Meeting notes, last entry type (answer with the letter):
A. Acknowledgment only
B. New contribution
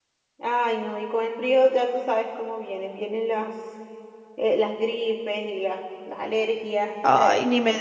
B